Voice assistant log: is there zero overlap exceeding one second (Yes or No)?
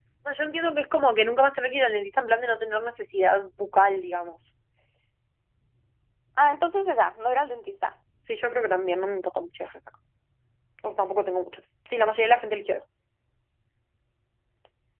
Yes